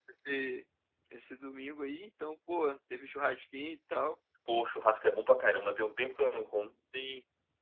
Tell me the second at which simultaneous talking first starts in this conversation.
none

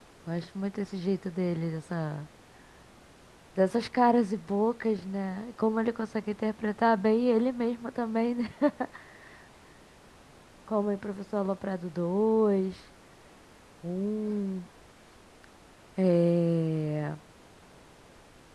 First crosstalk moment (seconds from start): none

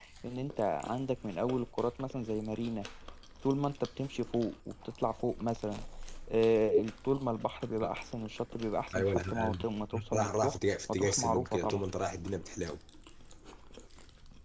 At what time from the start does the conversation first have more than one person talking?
8.9 s

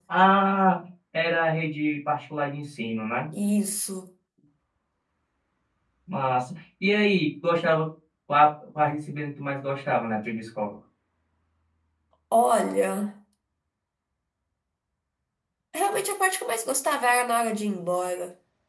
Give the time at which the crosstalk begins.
none

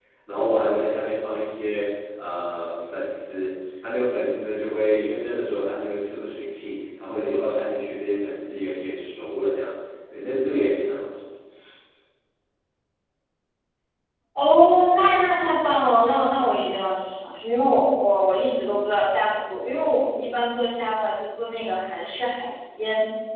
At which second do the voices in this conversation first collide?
none

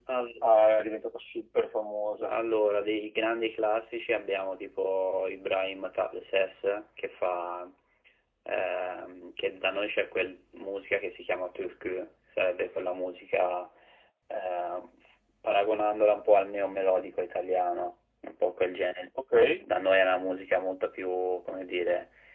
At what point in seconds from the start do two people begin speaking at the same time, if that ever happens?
none

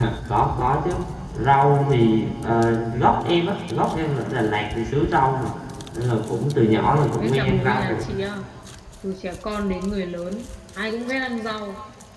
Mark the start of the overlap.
6.6 s

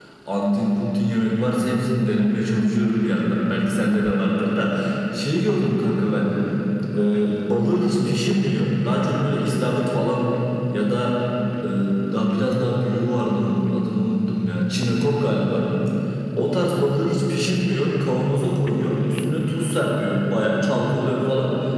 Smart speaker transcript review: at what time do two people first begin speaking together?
none

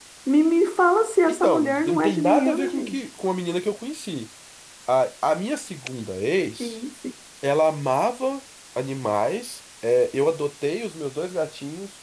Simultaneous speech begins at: 1.3 s

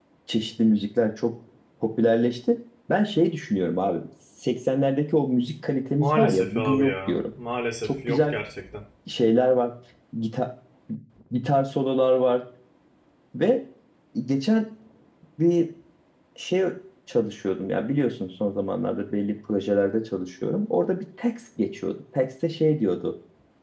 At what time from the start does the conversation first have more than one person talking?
6.0 s

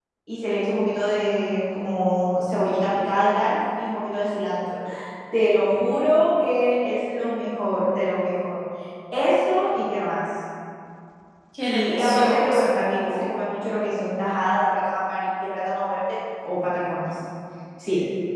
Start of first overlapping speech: 11.7 s

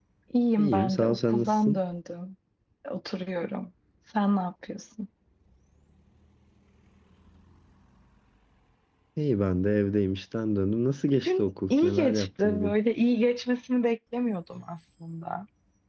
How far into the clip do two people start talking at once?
0.6 s

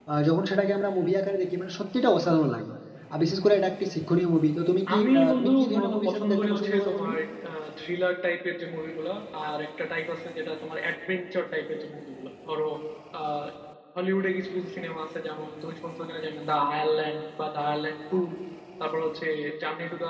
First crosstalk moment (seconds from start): 4.9 s

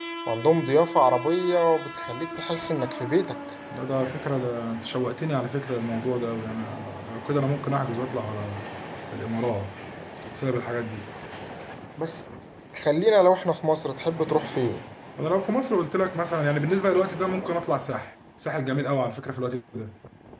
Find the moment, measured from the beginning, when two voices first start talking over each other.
none

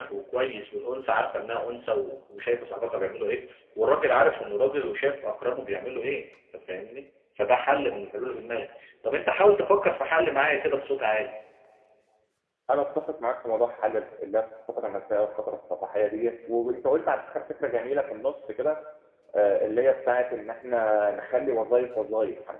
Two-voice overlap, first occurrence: none

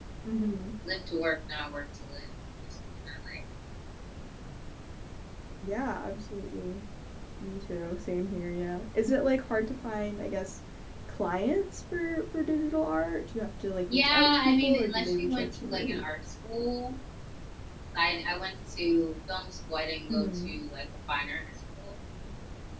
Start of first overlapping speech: 13.9 s

